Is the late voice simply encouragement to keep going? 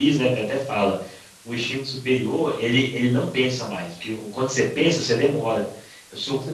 Yes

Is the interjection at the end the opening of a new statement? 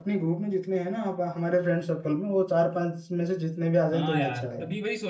Yes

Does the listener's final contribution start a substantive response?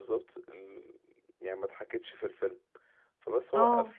No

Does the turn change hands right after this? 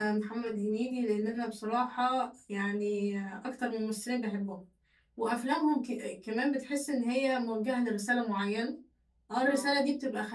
No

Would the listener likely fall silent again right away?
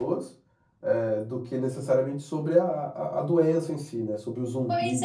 No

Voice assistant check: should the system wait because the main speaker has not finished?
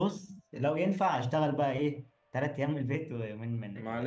No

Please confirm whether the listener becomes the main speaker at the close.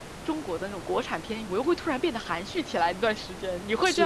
Yes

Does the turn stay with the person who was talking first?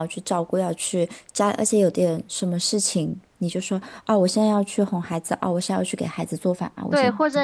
No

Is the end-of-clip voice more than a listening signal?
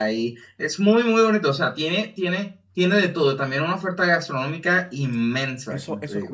Yes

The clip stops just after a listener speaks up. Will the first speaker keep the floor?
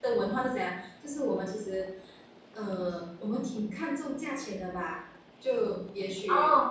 No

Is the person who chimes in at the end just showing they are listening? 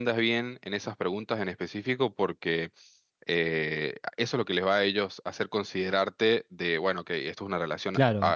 No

